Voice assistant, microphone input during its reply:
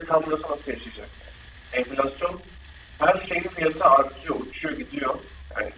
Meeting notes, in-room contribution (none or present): none